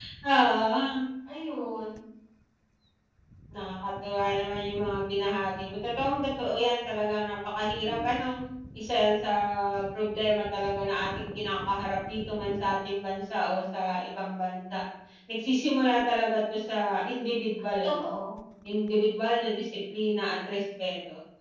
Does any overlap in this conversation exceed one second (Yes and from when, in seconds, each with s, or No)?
No